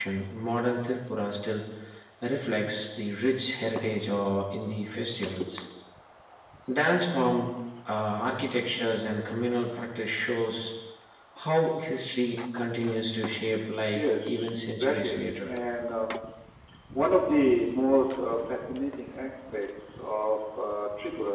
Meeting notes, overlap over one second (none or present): present